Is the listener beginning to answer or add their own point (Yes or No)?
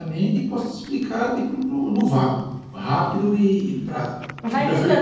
Yes